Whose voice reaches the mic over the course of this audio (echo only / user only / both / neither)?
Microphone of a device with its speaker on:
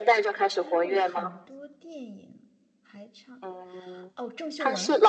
both